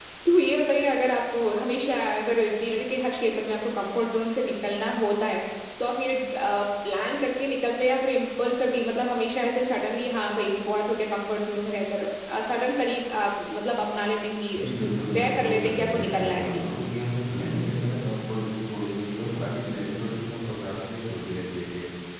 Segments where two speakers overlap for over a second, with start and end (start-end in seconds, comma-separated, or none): 14.6-16.6